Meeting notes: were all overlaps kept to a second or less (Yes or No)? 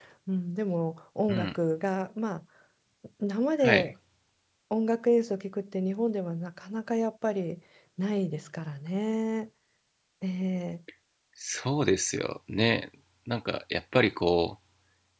Yes